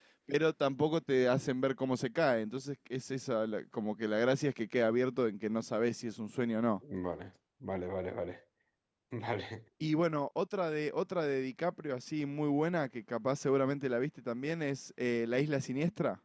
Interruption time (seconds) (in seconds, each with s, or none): none